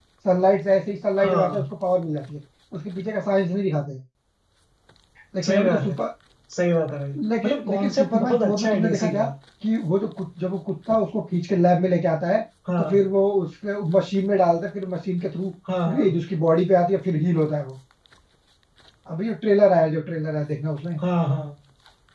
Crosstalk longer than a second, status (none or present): present